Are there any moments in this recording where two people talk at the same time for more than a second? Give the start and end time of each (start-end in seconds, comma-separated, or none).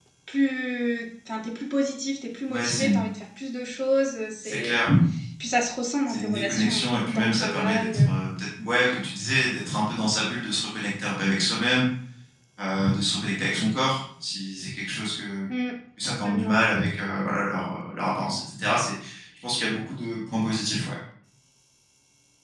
6.1-8.1